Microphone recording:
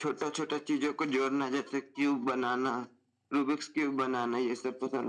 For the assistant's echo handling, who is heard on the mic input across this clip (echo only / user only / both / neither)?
echo only